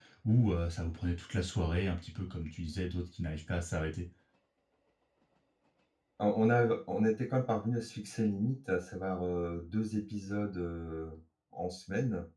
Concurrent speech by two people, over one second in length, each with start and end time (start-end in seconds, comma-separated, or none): none